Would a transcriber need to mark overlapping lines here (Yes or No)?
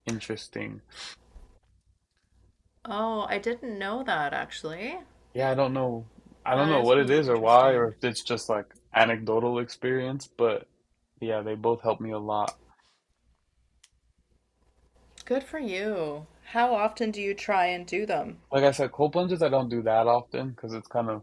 Yes